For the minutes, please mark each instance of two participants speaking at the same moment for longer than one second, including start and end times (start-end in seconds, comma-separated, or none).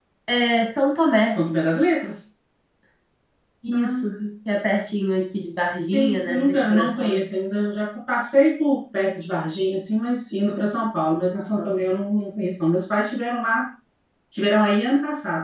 5.9-7.3